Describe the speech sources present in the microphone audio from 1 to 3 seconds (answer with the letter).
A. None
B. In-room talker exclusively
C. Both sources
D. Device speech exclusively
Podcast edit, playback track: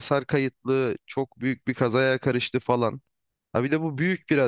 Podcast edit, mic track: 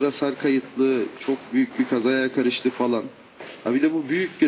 D